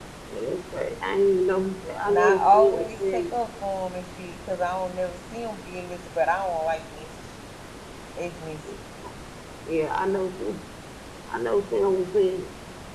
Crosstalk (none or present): present